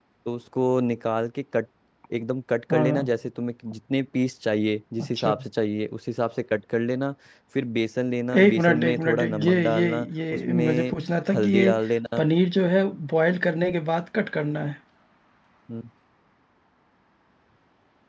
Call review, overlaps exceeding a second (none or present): present